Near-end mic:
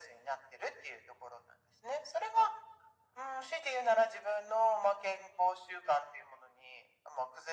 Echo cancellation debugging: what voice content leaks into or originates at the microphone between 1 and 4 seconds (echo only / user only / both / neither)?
echo only